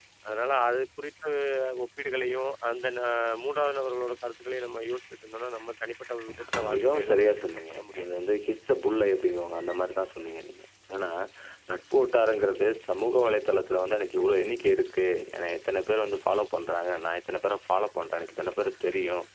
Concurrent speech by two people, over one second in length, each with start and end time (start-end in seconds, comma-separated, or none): 6.6-8.1